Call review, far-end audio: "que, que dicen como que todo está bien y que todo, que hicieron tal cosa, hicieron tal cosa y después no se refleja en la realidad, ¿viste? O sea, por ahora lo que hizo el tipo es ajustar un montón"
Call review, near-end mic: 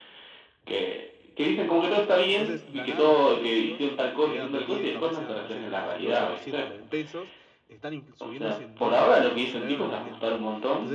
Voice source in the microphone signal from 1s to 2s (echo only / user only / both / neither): echo only